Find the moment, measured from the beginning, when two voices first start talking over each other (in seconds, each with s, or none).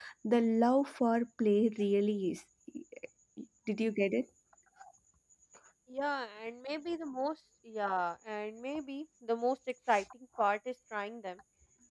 none